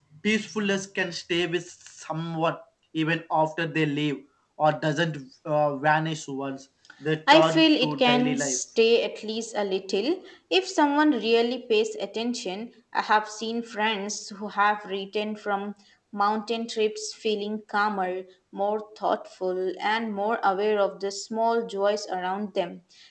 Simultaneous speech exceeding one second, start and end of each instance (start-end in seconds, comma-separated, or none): 7.3-8.6